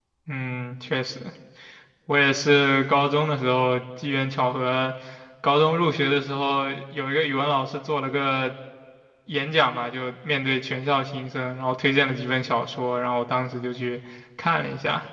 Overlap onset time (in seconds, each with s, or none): none